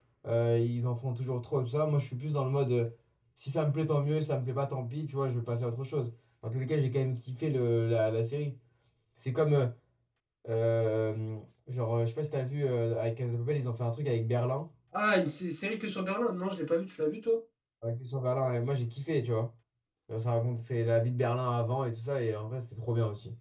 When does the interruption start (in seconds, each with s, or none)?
none